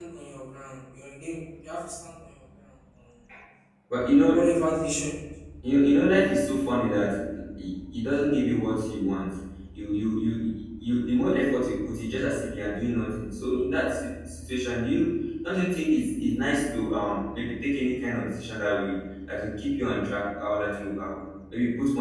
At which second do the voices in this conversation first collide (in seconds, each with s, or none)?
none